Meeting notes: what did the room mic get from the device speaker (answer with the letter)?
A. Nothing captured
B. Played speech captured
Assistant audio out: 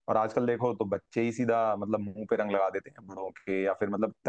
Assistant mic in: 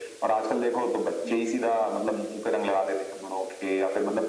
B